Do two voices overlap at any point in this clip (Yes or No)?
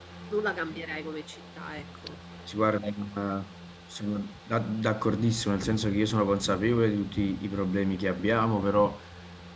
No